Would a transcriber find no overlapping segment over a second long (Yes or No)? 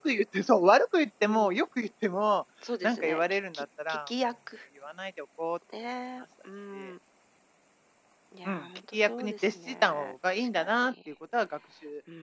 No